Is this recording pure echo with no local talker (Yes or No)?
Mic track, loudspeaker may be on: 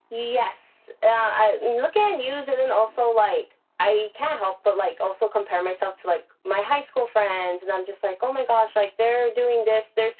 Yes